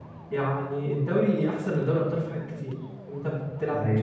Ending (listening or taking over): listening